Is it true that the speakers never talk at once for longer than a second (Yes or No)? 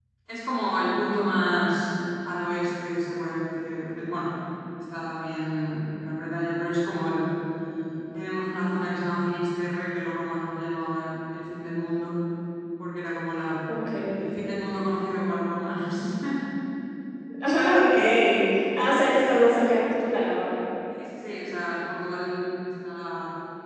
Yes